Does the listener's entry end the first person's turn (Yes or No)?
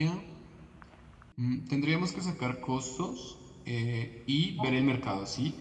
No